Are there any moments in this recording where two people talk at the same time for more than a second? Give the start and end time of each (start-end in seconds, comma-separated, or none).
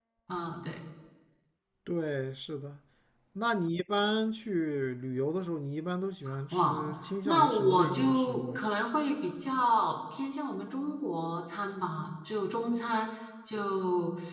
7.2-8.6